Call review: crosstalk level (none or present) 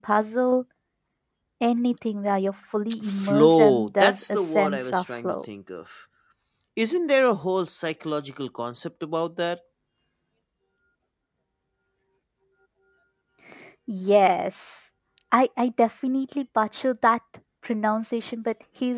present